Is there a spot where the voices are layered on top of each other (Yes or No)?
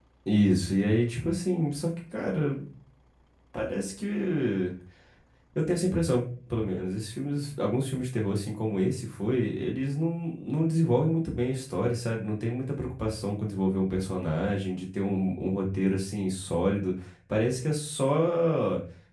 No